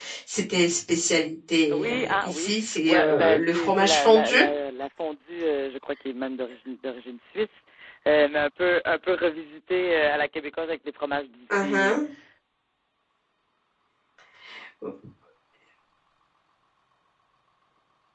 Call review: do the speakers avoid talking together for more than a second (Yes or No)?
No